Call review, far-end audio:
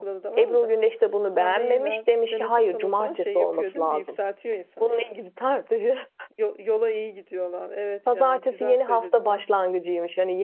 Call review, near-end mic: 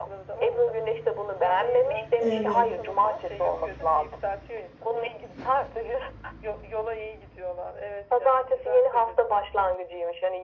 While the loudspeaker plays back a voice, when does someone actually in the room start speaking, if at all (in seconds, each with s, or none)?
2.2 s